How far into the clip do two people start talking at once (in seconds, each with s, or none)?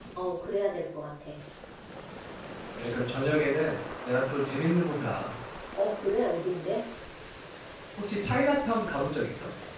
none